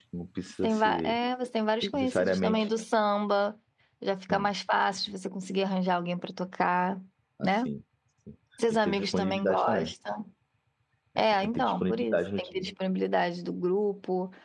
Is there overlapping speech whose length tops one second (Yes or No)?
Yes